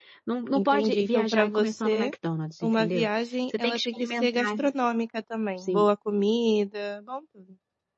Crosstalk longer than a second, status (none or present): present